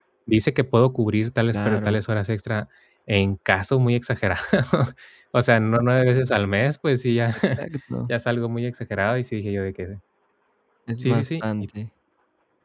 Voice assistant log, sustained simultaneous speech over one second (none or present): none